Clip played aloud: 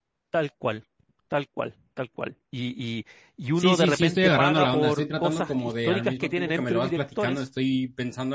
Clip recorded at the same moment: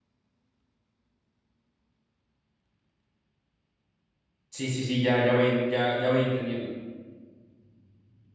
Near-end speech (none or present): present